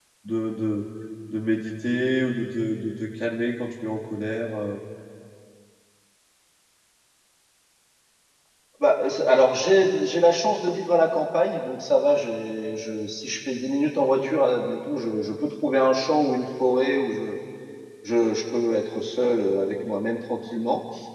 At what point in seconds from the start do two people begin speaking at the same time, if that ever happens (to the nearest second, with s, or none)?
none